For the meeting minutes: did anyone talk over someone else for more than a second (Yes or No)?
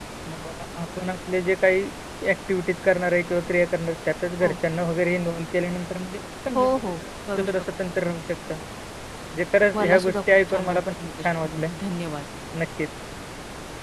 Yes